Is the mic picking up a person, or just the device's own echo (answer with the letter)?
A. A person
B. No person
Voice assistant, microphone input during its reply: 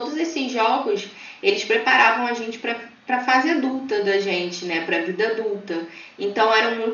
B